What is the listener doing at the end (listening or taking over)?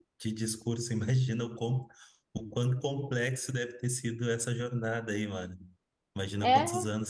listening